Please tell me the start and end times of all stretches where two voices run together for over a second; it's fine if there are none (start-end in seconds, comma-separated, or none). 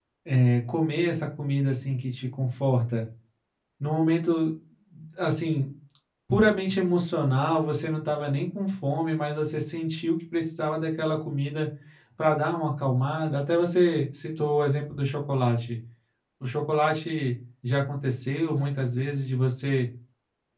none